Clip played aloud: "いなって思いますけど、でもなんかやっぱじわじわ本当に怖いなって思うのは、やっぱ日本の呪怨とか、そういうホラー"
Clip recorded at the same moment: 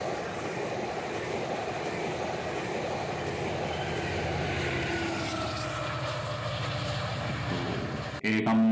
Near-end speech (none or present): present